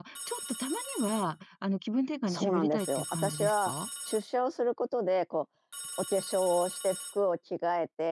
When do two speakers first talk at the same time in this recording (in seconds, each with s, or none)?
2.3 s